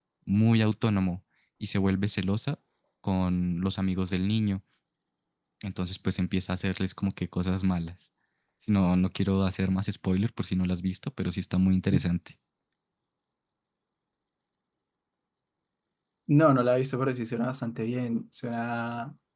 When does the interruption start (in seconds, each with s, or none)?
none